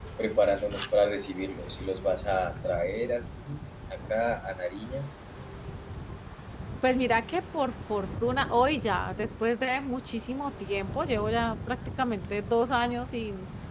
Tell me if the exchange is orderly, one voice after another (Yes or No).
Yes